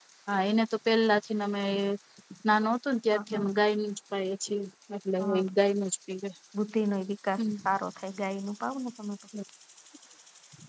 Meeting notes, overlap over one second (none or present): none